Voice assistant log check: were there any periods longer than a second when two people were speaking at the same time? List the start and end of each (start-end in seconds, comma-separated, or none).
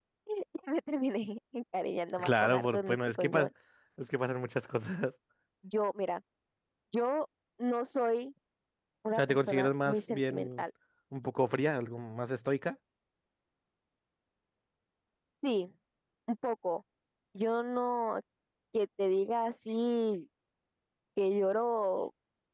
2.2-3.5, 9.2-10.6